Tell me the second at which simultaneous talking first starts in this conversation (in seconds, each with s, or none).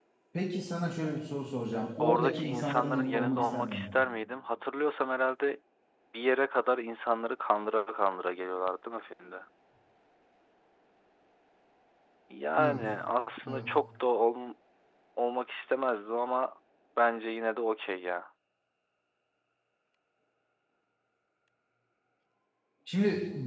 2.0 s